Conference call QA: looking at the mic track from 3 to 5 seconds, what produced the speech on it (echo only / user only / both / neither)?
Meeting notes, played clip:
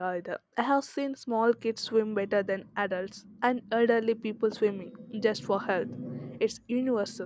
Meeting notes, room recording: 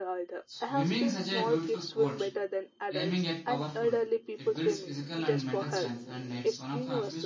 both